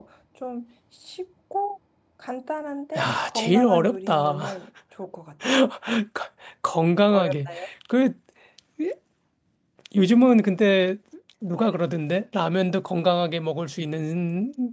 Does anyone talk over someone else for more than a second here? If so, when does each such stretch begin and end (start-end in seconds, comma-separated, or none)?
3.0-4.4